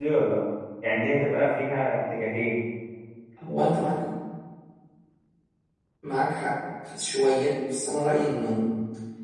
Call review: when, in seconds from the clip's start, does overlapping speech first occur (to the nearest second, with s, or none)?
none